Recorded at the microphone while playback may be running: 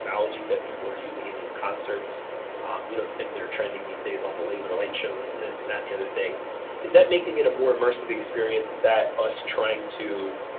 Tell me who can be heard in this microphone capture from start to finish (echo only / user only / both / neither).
echo only